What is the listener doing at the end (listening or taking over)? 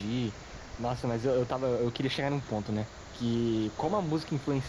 listening